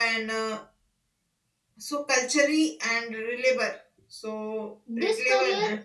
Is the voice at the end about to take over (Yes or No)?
Yes